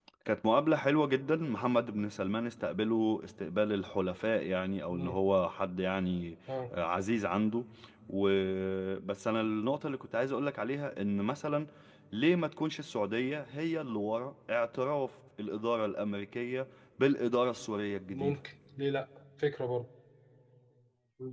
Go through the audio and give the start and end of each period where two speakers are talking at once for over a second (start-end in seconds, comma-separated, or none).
none